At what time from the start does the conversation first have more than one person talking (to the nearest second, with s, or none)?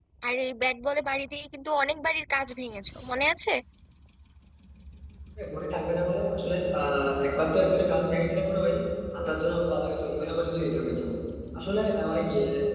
none